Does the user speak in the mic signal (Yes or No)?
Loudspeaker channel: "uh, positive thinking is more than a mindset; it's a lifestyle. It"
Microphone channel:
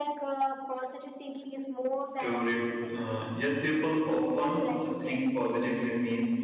Yes